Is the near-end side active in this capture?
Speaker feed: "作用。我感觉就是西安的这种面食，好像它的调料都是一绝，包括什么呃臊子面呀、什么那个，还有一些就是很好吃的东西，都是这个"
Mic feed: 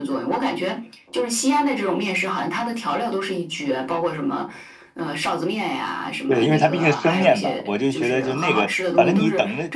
Yes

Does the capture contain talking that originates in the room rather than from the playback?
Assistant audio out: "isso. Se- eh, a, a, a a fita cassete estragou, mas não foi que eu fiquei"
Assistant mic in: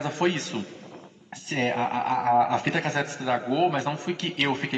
No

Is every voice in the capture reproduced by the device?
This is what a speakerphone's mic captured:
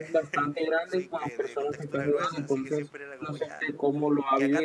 No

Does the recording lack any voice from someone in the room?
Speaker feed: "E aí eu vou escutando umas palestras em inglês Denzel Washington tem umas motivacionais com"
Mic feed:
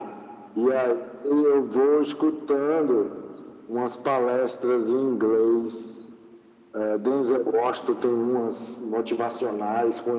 Yes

